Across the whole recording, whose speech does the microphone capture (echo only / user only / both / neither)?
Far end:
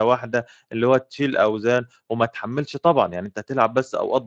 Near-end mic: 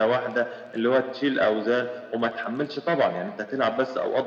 echo only